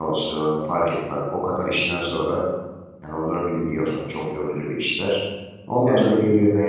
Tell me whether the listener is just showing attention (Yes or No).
Yes